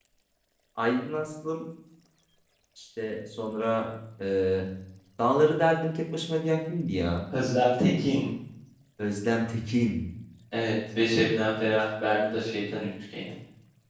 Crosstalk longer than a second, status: none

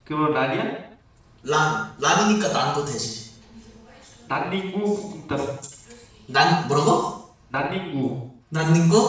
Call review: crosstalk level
none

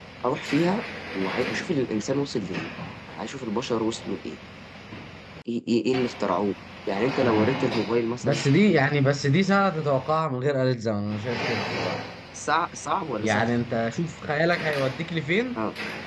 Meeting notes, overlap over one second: none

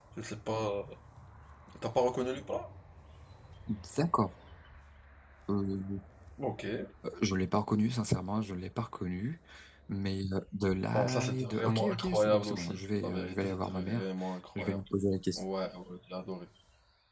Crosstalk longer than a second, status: present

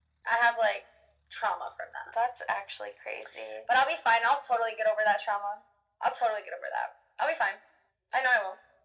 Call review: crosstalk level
none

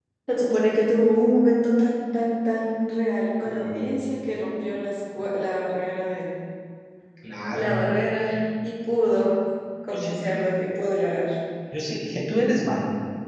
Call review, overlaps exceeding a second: none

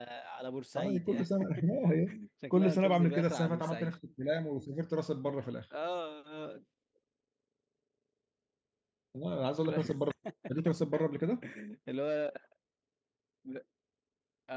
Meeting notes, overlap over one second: present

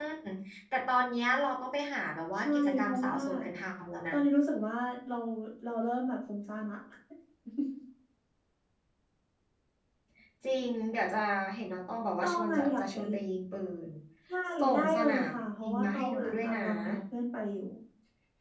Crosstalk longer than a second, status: present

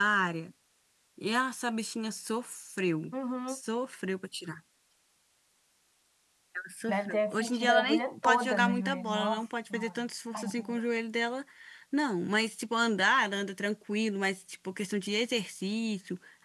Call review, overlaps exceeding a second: present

